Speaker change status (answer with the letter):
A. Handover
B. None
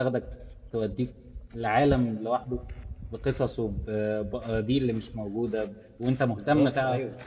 B